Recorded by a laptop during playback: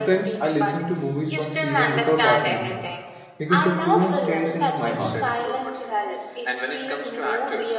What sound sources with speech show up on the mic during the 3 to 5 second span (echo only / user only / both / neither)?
both